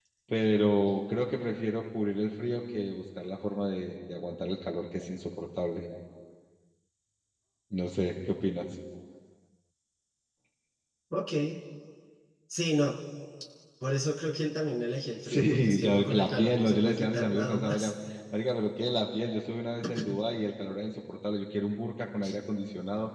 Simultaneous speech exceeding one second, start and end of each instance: 15.2-17.9

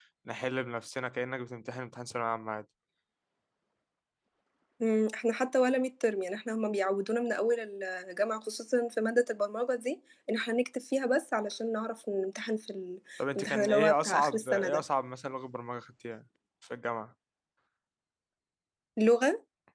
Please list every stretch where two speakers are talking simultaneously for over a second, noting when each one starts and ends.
13.4-14.8

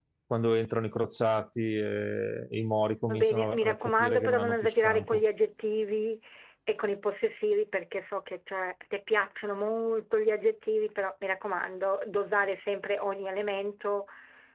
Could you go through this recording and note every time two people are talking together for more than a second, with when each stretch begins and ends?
3.1-5.2

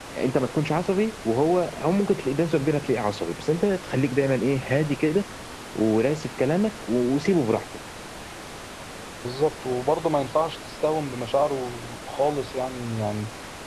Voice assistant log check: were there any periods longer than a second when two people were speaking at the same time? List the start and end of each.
none

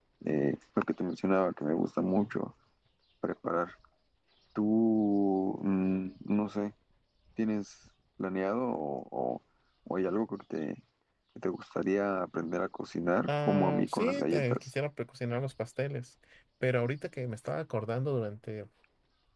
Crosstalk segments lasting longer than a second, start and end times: 13.3-14.6

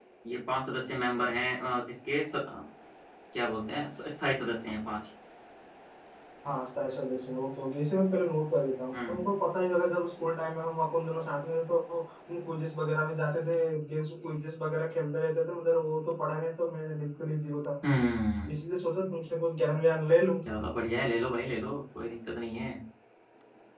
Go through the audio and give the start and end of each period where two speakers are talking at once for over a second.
none

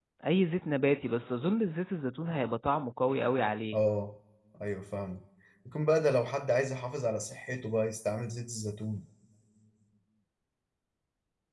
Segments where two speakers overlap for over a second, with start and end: none

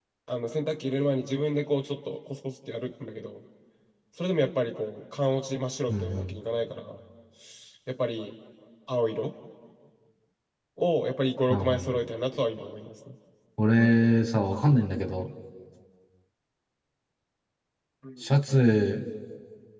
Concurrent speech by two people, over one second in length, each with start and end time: none

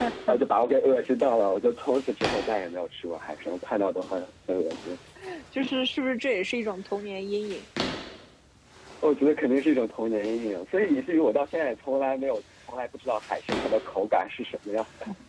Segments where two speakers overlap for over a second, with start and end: none

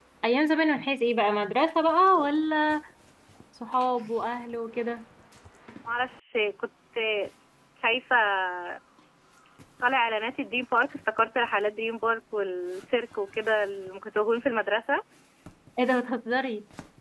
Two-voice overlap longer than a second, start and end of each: none

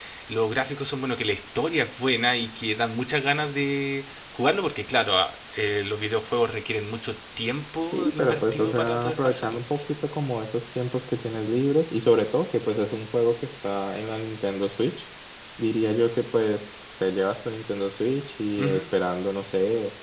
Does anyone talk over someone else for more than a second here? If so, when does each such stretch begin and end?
7.9-9.6

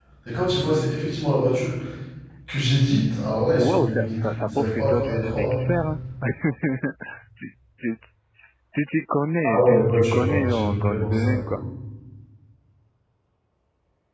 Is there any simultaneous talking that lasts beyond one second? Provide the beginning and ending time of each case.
3.5-5.7, 9.4-11.6

